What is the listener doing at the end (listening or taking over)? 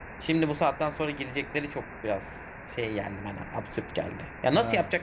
listening